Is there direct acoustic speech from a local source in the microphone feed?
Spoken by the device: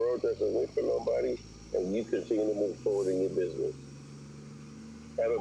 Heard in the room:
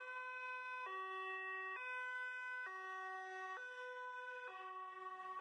No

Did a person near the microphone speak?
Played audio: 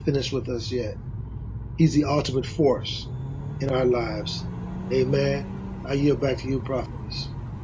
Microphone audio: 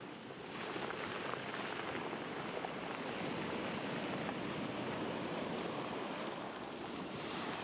No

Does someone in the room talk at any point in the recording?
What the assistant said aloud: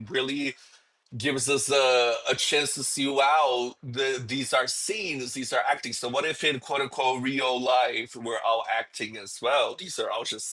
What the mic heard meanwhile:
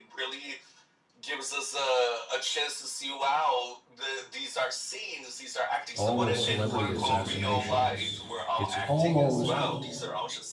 Yes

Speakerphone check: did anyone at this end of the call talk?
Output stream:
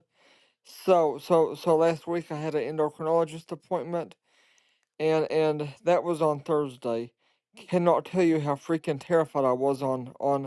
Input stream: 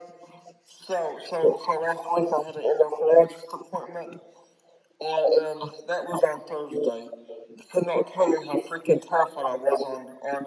No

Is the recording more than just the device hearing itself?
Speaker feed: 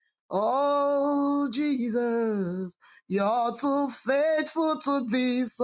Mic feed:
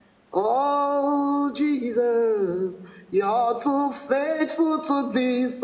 No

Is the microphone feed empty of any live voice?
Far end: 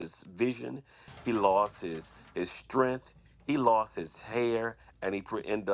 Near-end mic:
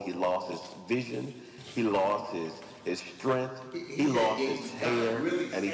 No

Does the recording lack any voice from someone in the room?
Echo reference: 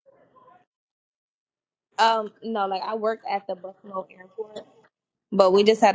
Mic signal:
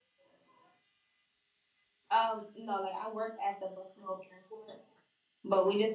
Yes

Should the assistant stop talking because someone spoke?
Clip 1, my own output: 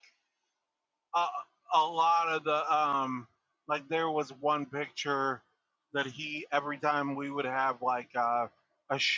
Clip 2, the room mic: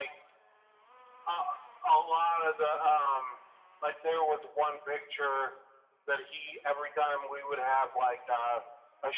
No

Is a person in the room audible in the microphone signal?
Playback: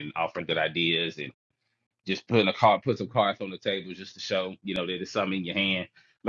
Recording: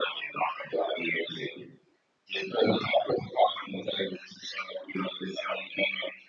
No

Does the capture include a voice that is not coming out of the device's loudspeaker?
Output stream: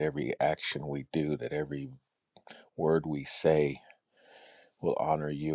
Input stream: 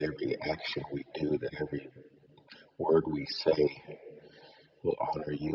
No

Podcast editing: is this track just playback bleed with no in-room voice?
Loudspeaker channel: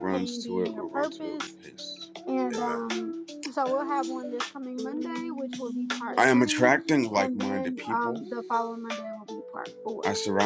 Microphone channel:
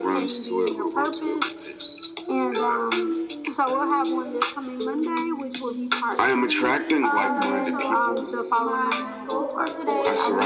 No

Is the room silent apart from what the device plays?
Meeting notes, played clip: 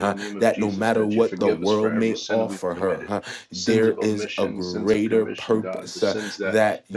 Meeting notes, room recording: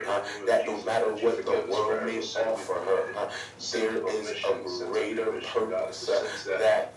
Yes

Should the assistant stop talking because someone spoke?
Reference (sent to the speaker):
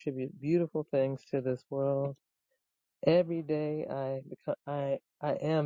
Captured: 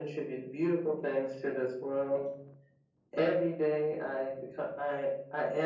No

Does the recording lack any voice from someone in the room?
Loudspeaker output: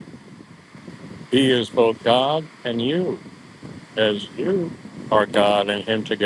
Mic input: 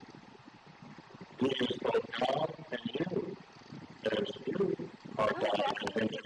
No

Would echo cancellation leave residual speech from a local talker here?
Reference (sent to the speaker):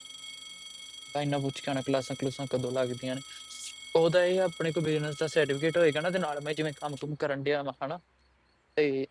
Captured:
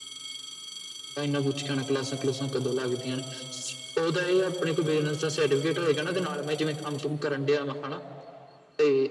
No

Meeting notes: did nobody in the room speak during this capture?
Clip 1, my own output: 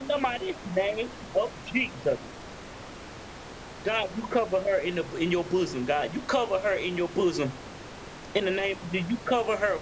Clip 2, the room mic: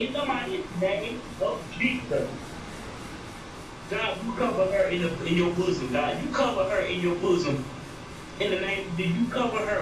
Yes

